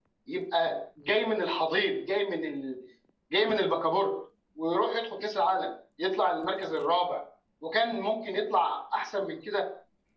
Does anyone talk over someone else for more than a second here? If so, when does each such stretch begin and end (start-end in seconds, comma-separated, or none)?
none